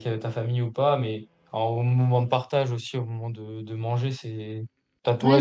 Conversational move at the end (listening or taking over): listening